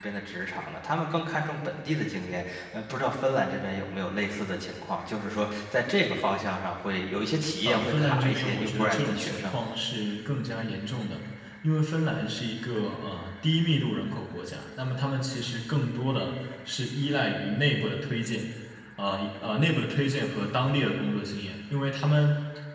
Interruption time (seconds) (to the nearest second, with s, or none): 8 s